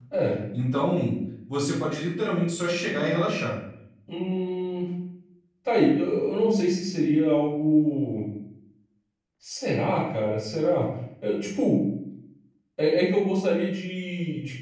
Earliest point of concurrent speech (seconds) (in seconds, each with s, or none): none